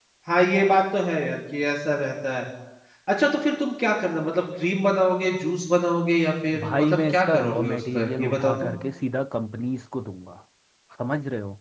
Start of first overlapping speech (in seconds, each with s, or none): 6.5 s